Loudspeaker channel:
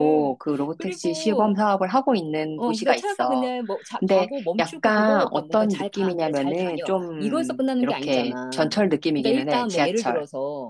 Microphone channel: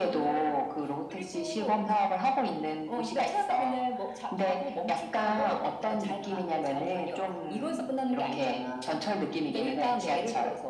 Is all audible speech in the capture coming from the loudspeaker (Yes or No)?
Yes